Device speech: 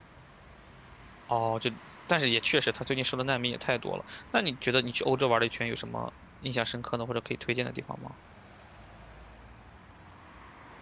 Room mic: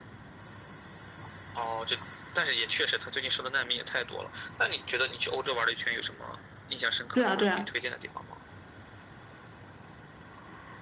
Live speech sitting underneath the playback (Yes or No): No